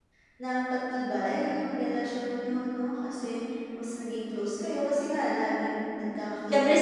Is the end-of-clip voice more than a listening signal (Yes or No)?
Yes